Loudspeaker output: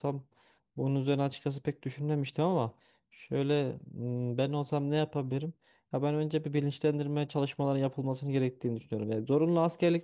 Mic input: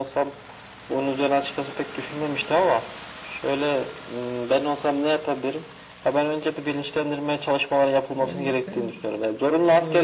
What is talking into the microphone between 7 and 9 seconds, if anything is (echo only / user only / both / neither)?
both